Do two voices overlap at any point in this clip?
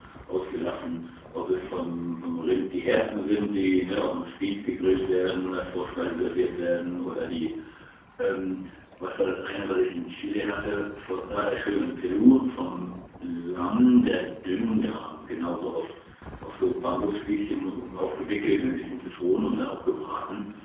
No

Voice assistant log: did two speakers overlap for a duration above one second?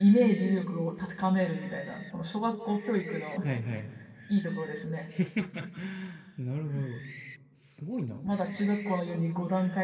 No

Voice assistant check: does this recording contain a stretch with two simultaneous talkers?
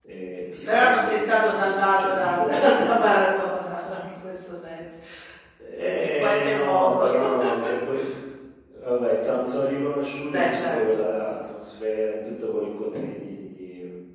Yes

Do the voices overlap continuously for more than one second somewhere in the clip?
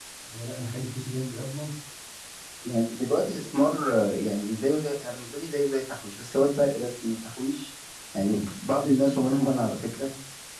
No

